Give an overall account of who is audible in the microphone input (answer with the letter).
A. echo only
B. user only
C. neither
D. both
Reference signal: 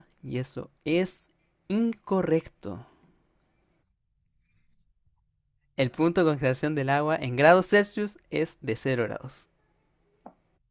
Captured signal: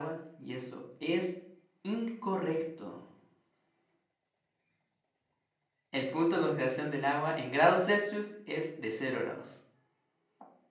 A